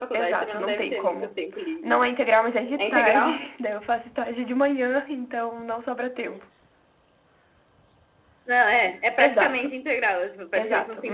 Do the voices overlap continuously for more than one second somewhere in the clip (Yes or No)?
Yes